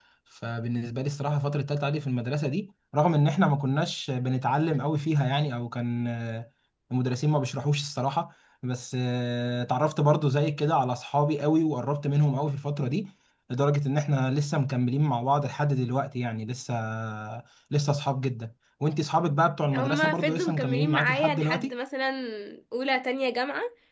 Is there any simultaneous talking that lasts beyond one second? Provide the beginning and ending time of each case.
19.7-21.7

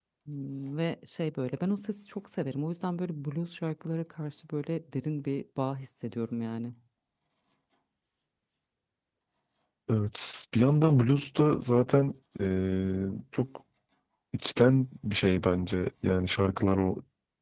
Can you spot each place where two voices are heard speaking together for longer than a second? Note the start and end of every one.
none

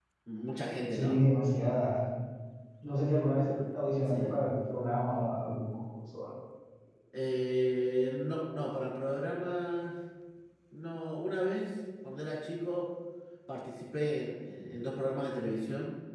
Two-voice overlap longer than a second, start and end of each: none

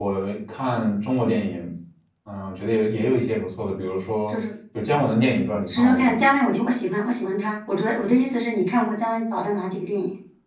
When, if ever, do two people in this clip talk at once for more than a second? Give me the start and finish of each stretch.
none

